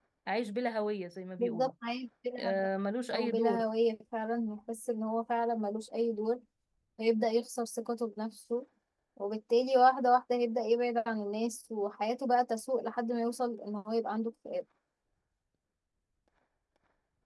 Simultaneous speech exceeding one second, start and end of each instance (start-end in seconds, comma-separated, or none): none